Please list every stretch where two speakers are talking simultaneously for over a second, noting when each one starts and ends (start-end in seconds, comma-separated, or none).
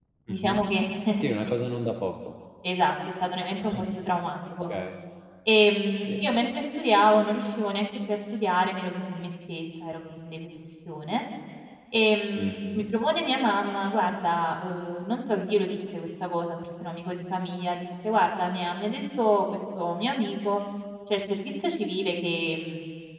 none